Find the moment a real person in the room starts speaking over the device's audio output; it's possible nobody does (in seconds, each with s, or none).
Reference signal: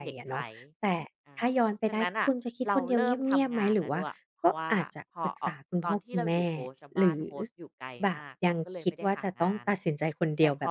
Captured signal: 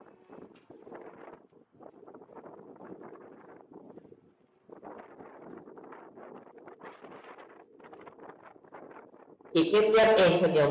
9.5 s